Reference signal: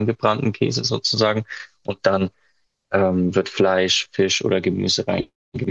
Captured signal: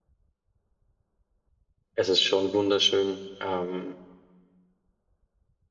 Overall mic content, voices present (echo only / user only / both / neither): user only